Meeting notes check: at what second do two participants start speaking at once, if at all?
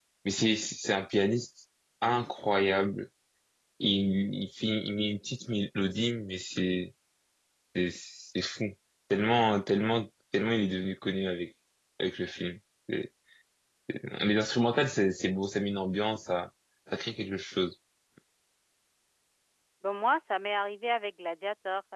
none

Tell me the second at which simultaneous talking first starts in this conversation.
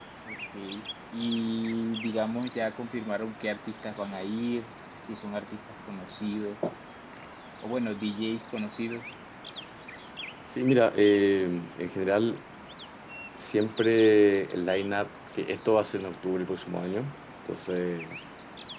none

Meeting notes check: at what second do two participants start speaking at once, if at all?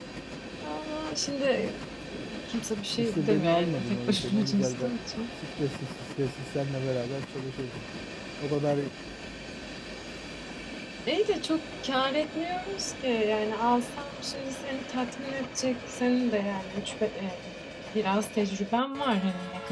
3.0 s

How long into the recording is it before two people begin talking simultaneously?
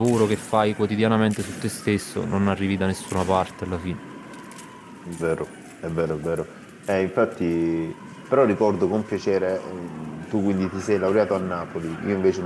none

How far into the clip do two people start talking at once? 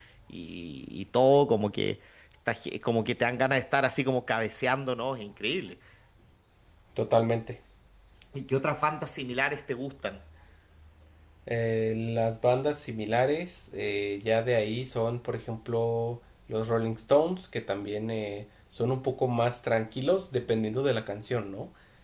none

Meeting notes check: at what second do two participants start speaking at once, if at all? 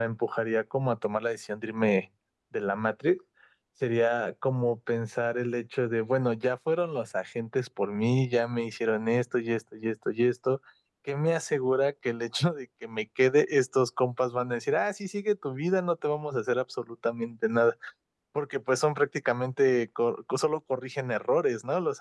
none

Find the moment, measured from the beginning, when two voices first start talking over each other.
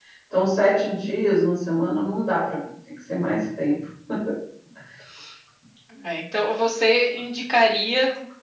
none

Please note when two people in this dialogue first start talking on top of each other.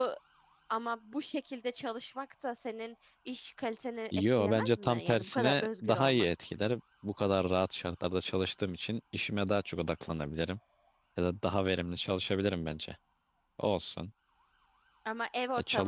4.1 s

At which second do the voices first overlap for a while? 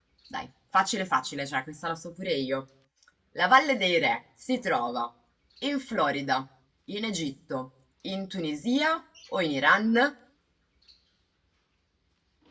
none

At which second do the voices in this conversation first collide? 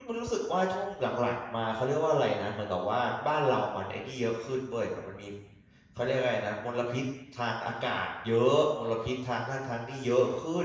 none

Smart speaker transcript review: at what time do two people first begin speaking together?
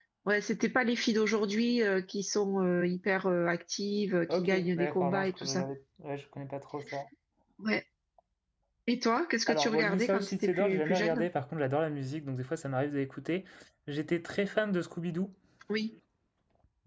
4.3 s

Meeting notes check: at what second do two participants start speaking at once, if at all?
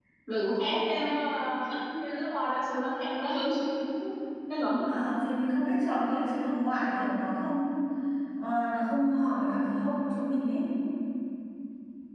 none

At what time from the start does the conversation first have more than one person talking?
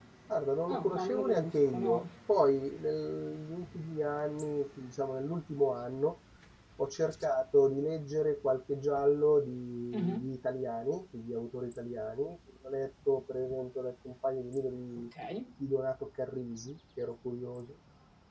0.7 s

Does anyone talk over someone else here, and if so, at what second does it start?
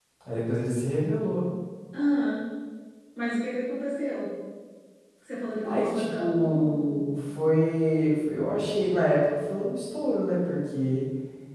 5.6 s

